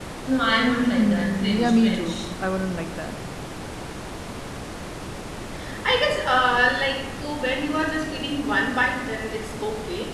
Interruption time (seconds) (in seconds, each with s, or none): 0.9 s